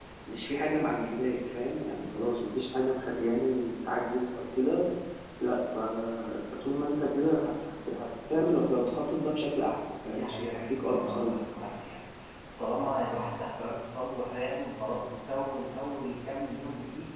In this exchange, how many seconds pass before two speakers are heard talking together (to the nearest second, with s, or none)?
10 s